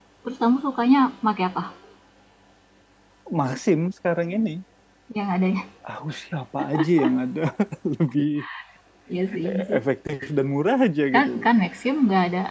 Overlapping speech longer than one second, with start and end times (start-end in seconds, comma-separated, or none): none